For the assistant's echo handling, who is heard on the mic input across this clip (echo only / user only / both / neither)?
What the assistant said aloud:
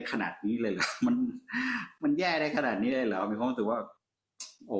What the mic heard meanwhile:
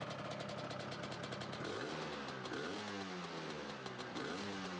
neither